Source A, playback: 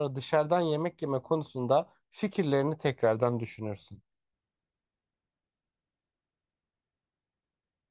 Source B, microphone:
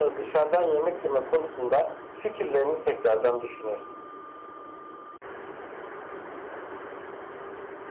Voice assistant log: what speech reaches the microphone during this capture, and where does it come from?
echo only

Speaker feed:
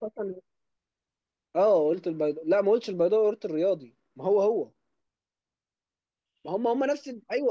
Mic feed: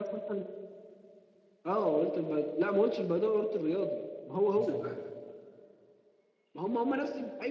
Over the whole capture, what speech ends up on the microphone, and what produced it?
both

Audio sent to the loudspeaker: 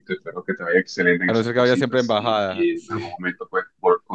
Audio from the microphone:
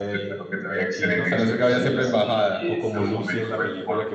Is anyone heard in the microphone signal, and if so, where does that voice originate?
both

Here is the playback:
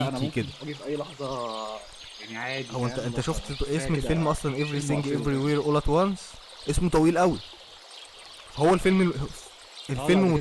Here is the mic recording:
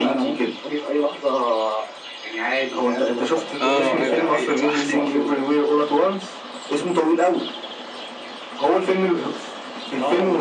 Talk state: both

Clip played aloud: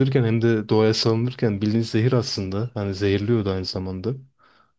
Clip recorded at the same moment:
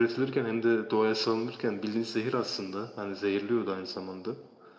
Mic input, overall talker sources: echo only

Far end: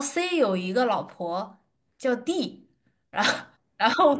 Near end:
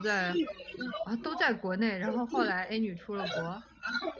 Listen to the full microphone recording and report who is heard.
both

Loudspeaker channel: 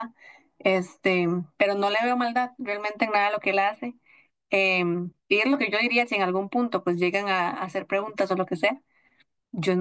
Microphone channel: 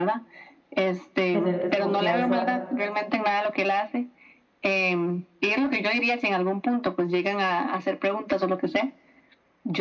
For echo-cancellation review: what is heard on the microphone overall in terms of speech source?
both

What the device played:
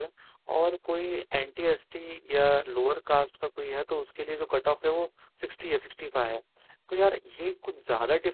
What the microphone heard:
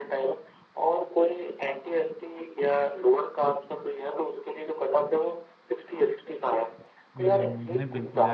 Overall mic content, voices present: both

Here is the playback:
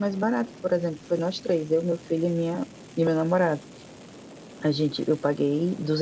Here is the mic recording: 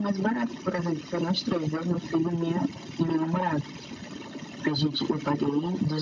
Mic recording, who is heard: echo only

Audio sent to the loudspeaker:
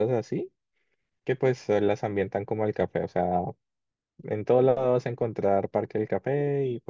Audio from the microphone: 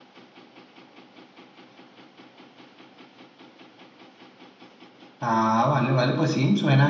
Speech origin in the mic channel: user only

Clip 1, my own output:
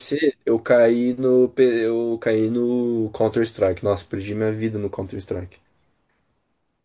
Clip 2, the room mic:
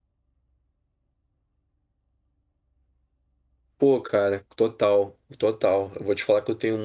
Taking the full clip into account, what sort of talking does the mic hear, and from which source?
user only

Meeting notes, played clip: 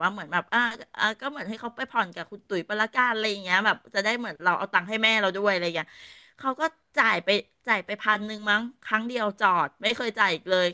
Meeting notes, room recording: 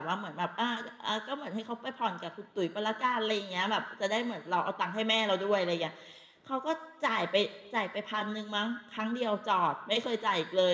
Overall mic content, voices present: echo only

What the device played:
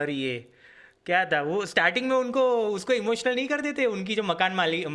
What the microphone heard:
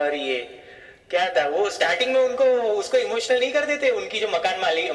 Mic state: echo only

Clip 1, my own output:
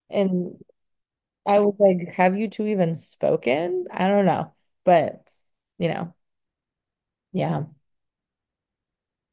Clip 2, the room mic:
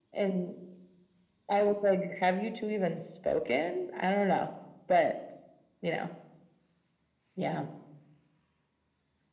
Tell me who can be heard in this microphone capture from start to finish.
echo only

